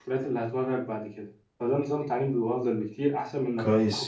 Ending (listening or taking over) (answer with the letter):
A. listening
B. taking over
A